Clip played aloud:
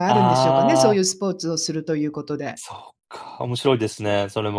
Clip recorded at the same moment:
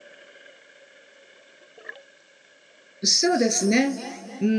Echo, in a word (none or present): none